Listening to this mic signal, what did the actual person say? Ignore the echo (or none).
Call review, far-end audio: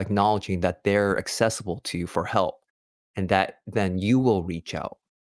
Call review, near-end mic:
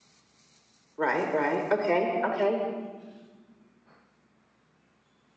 Right. Right. Okay. Okay.